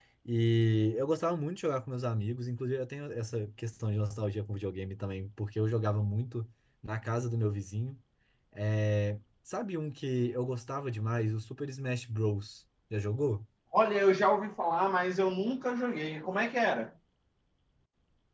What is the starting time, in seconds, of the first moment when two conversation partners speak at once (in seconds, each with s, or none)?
none